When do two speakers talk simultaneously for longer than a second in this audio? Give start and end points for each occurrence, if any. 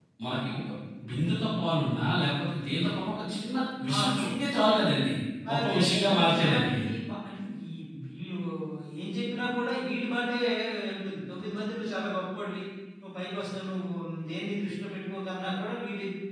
5.5-6.8

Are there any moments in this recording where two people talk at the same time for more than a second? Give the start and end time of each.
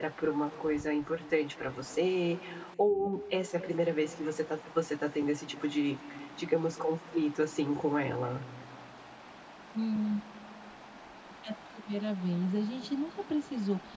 none

